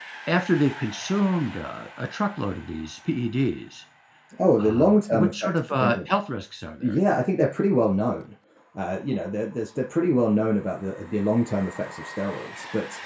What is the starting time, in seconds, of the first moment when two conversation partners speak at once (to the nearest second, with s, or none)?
5 s